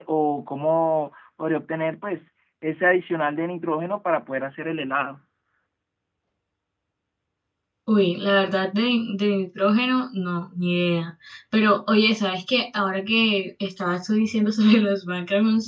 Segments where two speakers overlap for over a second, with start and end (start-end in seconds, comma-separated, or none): none